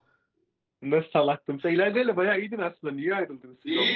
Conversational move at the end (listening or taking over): taking over